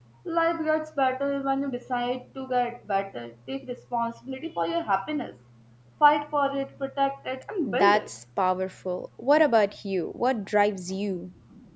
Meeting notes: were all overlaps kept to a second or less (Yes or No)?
Yes